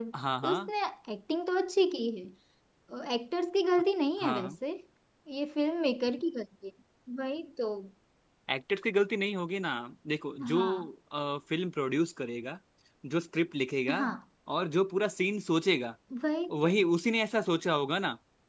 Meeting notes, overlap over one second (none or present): none